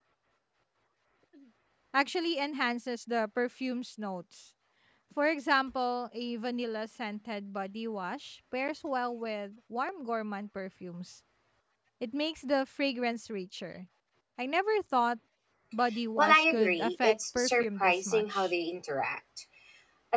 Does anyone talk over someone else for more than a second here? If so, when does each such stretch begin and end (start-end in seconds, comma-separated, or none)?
16.2-18.5